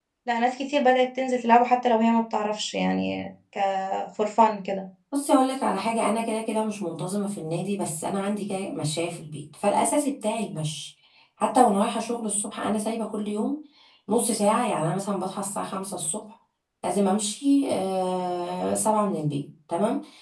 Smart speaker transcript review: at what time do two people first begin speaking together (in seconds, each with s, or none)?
none